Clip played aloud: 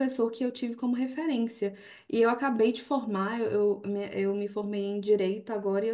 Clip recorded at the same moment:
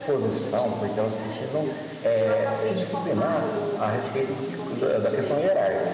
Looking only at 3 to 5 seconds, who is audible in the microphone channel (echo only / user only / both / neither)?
both